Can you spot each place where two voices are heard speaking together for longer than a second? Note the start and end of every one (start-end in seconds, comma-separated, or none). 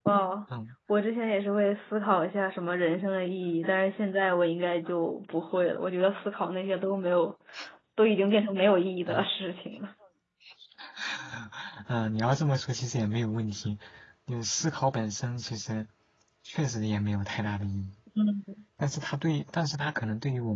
none